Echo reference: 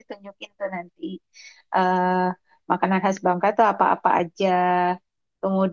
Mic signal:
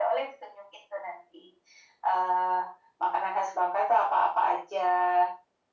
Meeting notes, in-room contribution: none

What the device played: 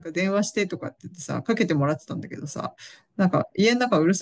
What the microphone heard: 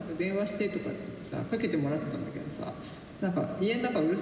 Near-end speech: none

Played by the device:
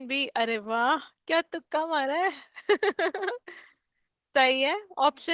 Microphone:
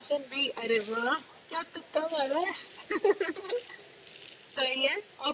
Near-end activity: none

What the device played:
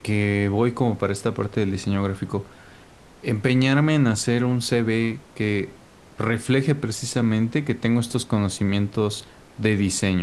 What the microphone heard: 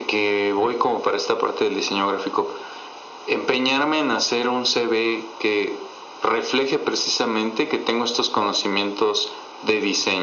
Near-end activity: none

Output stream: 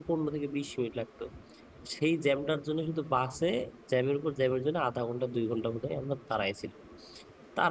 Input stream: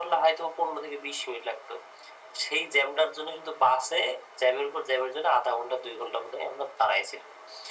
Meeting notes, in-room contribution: none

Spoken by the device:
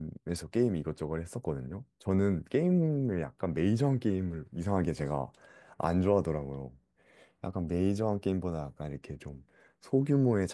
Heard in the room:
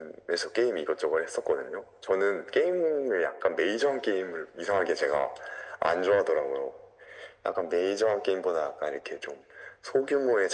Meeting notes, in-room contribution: none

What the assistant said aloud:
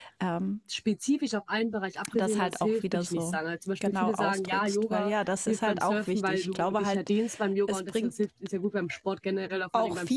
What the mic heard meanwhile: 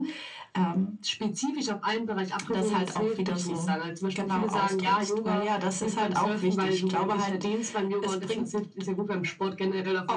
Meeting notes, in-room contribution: none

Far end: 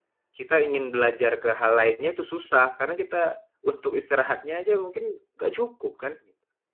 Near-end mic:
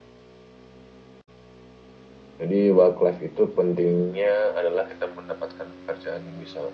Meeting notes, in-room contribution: present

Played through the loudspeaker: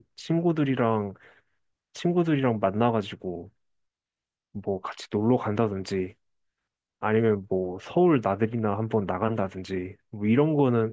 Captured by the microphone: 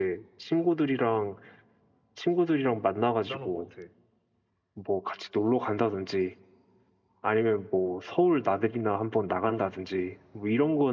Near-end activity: present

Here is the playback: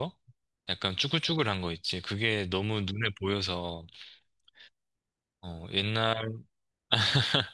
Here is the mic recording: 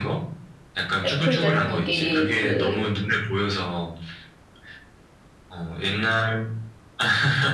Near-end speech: present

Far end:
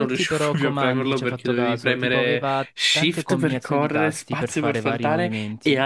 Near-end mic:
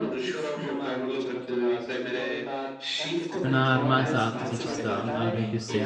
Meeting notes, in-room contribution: present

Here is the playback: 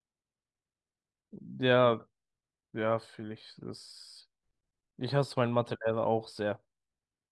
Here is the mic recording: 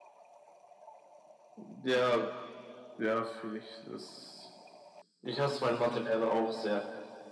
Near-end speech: present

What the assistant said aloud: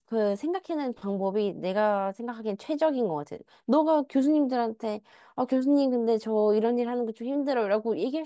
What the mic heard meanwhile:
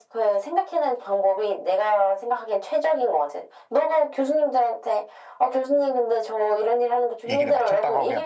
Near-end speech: present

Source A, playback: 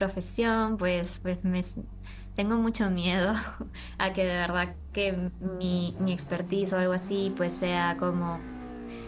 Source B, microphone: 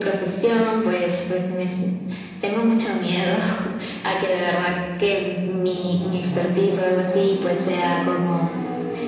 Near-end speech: none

